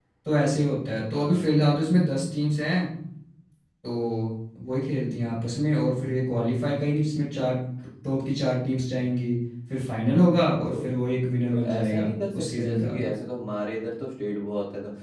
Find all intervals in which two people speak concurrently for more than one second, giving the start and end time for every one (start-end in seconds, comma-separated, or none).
11.5-12.9